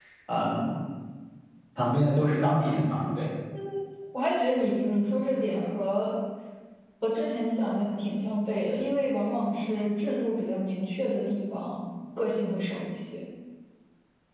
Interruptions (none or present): none